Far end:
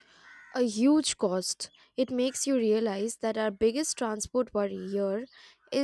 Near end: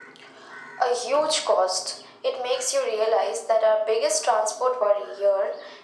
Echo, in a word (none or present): present